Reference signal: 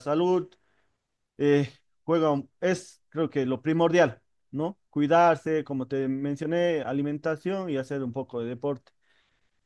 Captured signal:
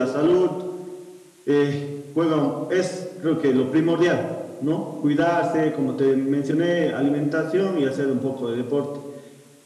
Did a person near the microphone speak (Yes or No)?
No